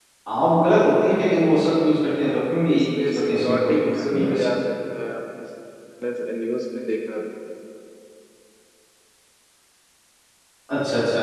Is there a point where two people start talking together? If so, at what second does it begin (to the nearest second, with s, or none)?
3 s